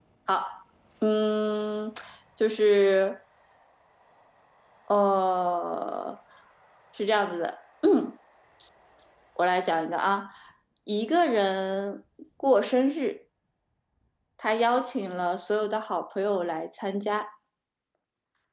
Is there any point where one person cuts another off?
No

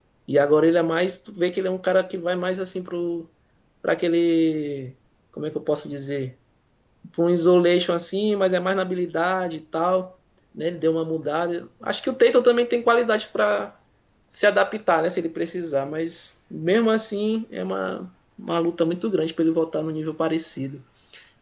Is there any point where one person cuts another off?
No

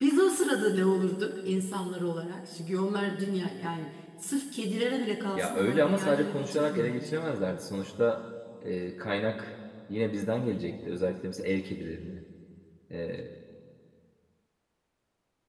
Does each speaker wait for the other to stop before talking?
No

